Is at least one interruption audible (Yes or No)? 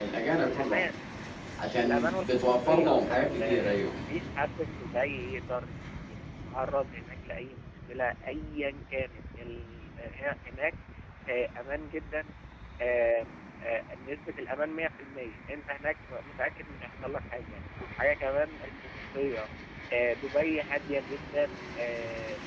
Yes